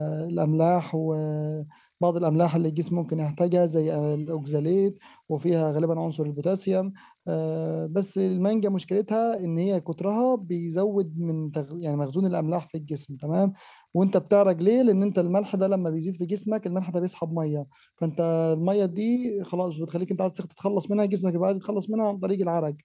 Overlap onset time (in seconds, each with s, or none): none